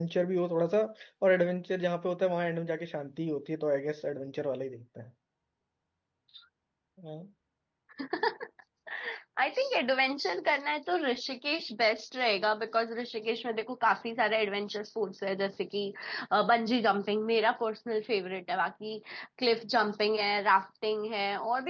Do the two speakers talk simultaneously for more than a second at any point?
No

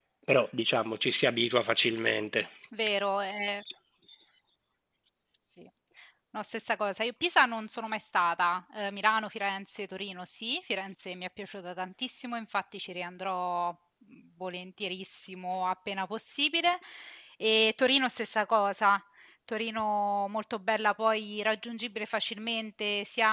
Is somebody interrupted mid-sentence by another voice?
No

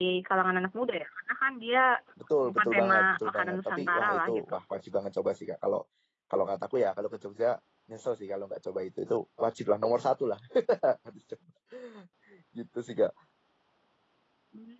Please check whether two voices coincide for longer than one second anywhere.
Yes, from 2.5 s

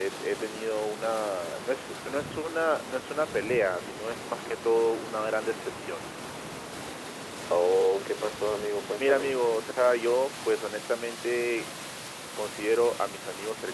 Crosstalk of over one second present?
No

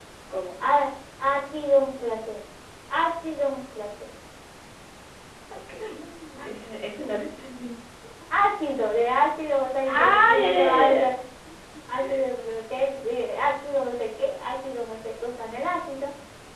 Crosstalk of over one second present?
Yes, from 9.9 s

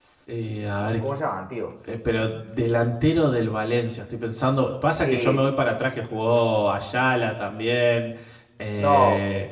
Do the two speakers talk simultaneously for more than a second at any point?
No

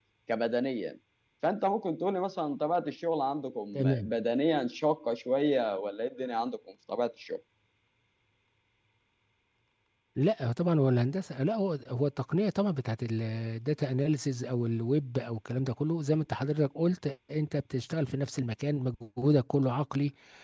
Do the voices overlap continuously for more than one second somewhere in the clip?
No

